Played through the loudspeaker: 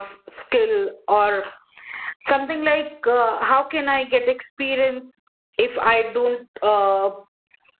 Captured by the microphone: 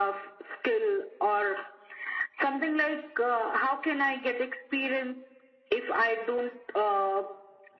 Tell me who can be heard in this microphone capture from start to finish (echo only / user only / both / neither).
echo only